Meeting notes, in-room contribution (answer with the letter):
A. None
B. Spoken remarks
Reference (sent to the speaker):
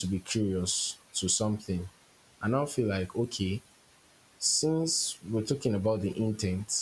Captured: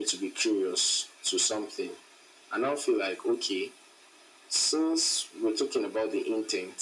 A